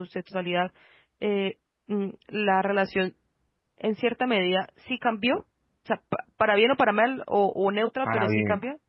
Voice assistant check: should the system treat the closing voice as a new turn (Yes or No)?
No